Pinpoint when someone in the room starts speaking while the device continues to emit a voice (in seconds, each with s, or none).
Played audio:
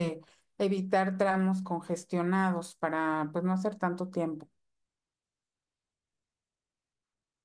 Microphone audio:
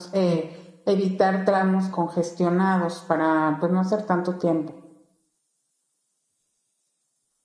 none